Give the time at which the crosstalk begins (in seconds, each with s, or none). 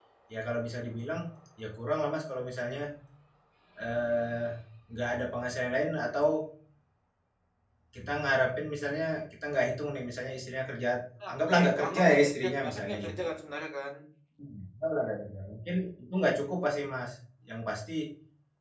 11.3 s